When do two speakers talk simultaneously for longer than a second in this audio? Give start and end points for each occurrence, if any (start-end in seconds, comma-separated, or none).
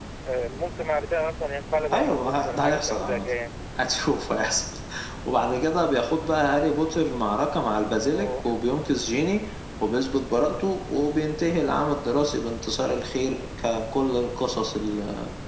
1.9-3.2